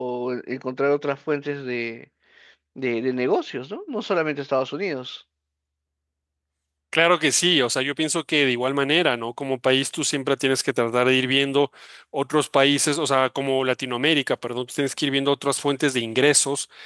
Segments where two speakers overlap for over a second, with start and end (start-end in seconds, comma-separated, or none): none